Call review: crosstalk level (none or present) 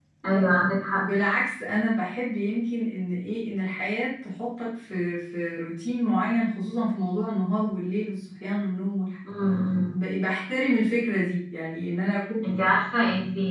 none